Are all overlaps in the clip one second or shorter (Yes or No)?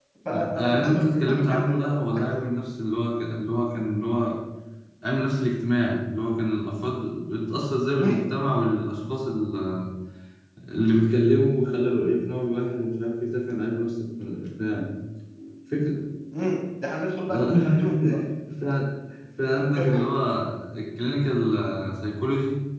No